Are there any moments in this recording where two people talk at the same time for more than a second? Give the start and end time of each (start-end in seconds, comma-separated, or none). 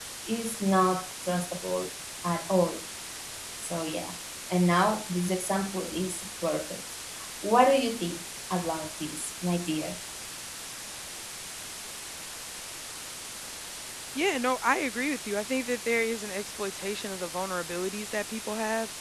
none